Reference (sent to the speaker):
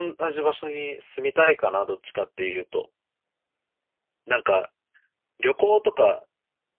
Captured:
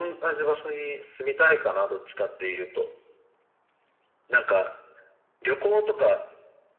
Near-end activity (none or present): none